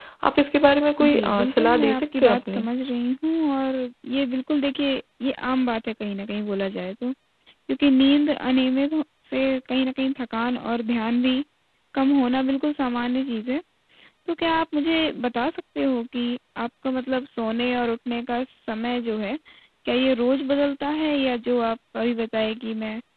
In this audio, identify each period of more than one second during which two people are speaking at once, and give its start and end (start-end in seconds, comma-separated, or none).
1.0-2.7